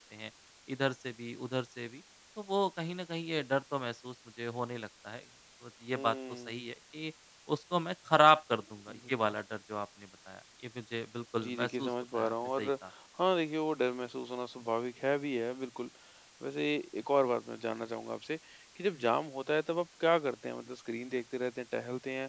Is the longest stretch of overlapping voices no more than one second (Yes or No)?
No